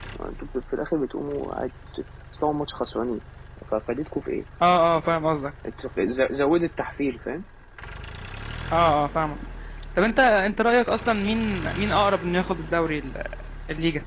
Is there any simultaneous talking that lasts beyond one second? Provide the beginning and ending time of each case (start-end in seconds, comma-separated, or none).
none